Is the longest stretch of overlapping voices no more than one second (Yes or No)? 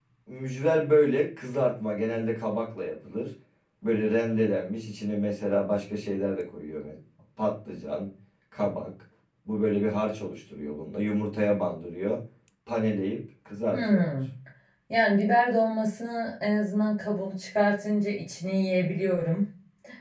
Yes